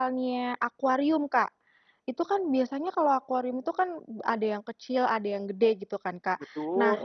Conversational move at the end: listening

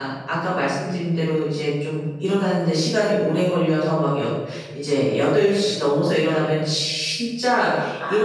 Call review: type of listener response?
listening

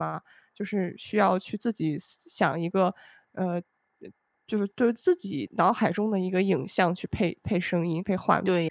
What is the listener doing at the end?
taking over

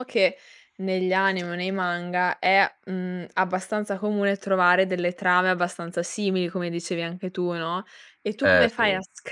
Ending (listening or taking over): listening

